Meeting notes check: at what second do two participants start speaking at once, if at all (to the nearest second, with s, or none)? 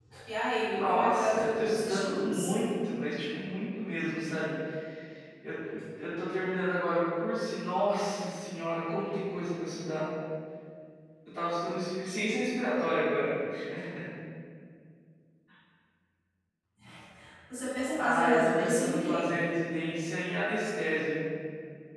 1 s